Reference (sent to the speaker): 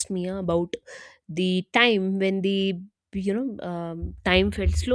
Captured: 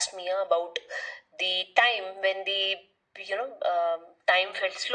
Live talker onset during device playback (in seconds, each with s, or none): none